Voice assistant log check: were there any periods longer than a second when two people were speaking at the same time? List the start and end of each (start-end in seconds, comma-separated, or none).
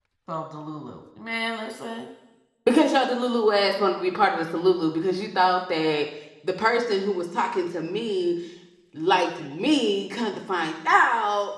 none